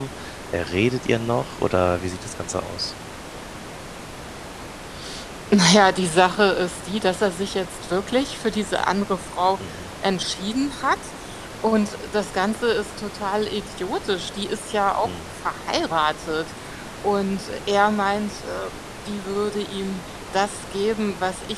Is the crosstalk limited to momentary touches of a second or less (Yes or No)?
Yes